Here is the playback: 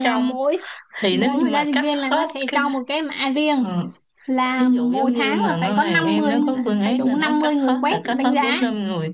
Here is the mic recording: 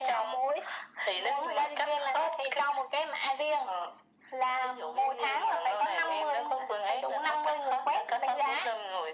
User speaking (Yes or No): No